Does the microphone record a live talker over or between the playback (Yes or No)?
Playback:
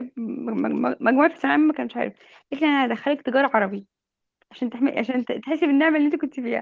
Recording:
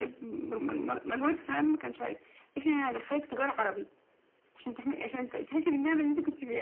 No